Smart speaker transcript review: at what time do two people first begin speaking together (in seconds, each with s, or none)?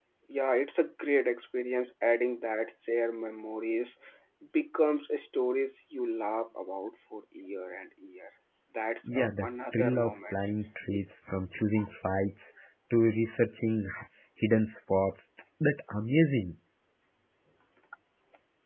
9.2 s